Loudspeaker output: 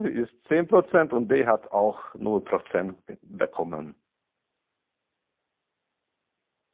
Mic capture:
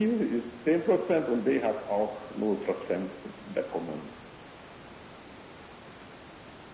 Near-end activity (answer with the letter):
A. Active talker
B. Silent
B